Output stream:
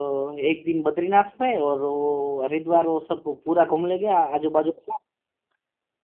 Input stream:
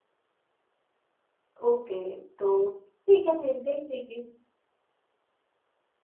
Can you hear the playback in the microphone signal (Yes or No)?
No